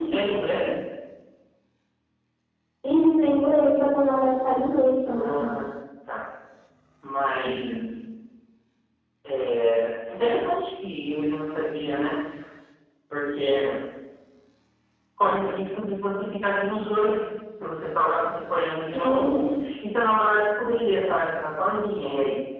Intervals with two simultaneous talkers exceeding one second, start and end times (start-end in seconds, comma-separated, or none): none